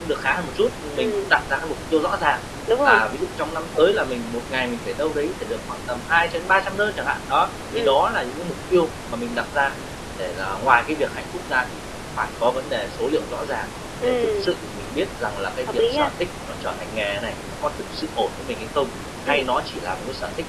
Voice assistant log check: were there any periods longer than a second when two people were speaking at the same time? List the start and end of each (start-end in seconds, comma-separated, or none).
none